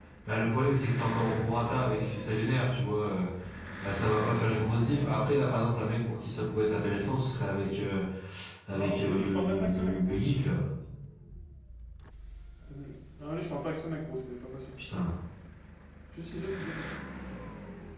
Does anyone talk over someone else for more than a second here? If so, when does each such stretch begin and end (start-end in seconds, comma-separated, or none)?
8.7-10.6